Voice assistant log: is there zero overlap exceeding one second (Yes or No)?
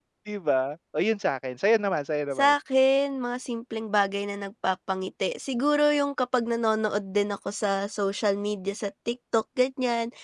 Yes